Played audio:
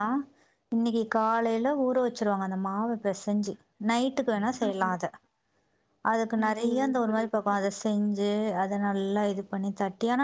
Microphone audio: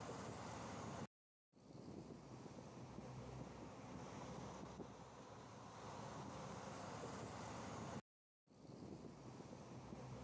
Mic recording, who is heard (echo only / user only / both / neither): neither